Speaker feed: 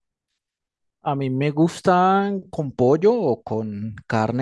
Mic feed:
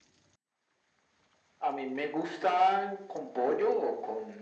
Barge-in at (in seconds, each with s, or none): none